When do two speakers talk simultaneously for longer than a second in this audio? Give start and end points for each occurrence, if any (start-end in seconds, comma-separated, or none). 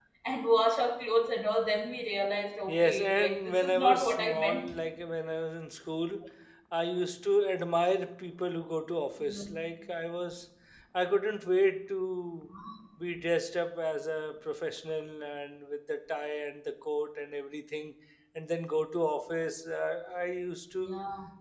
2.7-4.7